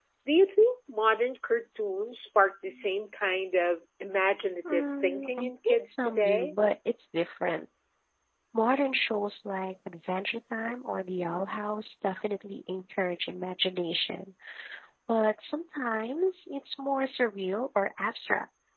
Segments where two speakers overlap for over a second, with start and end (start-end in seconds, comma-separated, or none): 4.7-6.5